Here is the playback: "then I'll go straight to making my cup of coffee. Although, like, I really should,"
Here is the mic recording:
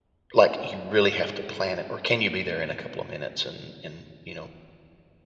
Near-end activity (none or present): present